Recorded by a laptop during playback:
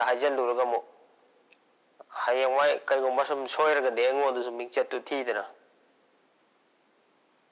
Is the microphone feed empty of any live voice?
Yes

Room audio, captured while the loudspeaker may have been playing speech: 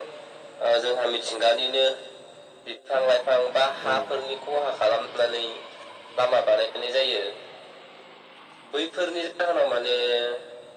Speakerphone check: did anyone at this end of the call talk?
Yes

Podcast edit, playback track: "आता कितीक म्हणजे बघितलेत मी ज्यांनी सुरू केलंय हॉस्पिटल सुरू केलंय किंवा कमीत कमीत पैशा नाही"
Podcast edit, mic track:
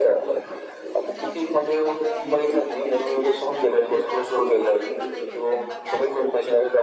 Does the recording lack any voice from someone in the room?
No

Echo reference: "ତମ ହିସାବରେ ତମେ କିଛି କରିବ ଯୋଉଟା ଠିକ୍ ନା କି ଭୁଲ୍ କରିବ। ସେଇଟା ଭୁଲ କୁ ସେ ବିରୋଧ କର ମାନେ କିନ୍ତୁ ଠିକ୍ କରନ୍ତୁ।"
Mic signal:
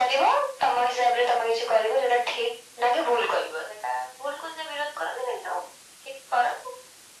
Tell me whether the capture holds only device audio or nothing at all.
Yes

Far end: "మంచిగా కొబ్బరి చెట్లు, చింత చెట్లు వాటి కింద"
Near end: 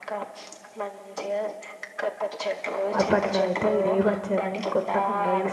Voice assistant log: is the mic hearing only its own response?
No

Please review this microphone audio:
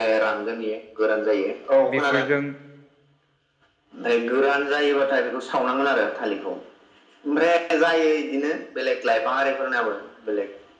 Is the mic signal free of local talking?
No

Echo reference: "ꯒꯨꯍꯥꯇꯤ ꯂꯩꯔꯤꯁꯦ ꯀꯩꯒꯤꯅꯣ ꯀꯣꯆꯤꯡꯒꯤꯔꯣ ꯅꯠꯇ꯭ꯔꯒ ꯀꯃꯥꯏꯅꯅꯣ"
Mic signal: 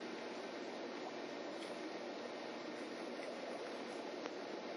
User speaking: No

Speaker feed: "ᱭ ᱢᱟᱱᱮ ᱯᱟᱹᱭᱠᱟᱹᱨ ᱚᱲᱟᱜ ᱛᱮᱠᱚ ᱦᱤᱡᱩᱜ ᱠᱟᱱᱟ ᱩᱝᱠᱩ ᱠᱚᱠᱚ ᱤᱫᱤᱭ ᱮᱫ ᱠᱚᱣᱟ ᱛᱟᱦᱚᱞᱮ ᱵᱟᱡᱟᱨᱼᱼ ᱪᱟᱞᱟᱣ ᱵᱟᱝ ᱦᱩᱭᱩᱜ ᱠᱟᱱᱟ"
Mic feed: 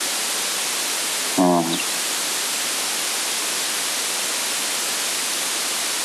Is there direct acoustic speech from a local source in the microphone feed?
Yes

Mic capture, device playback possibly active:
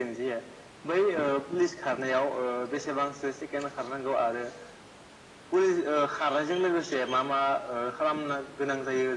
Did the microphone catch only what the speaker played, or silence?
Yes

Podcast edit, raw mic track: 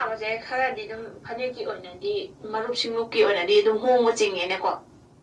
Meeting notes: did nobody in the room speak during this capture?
Yes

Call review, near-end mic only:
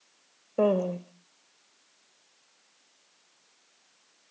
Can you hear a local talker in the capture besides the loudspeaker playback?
Yes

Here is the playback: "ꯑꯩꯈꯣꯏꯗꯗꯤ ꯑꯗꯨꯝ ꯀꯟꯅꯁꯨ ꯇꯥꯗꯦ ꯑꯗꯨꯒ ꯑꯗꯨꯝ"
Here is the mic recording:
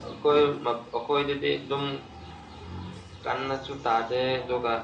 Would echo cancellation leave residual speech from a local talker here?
No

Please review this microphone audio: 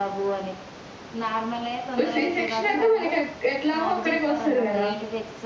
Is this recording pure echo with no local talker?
No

